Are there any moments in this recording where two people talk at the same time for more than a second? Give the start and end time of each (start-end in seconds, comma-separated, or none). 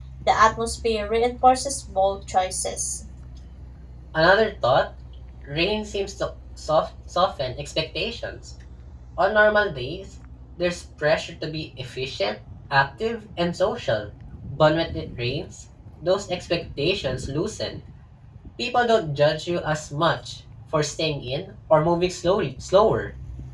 none